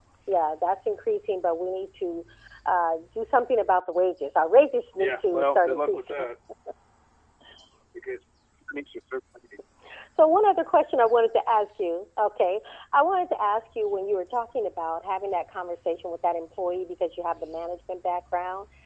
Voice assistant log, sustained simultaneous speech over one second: present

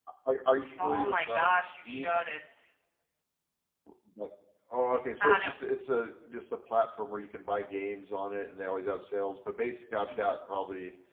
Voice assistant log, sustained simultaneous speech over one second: present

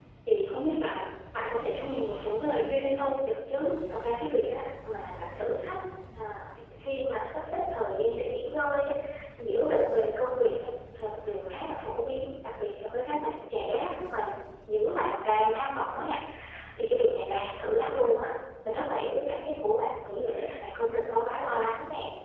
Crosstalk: none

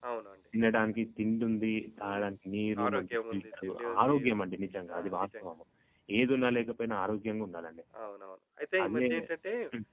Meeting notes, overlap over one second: present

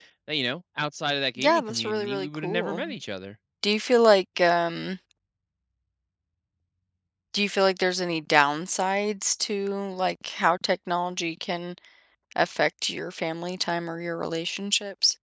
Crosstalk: present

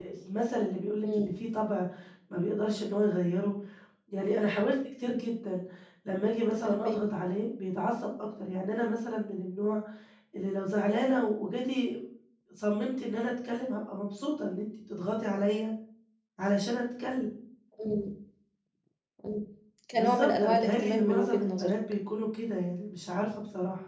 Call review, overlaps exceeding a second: present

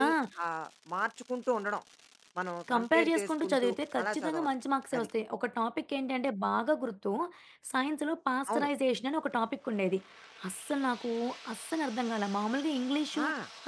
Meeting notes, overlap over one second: present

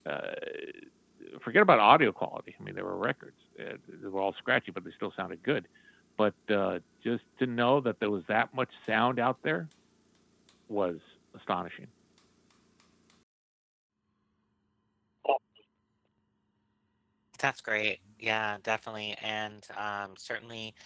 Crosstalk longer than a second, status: none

